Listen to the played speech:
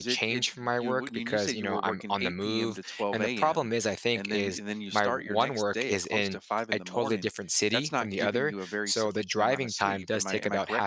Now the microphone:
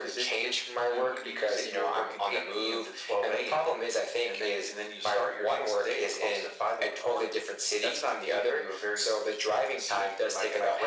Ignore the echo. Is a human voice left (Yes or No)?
No